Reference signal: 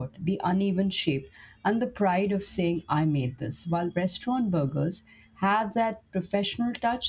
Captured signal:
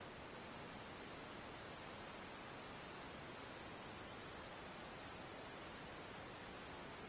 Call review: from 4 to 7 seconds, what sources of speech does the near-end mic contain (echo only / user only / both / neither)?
neither